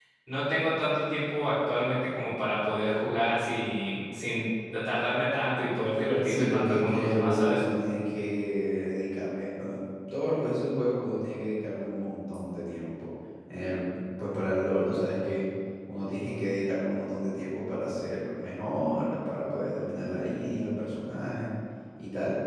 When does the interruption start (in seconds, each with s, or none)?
6.2 s